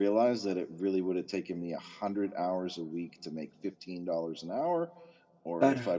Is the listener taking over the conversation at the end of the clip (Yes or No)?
No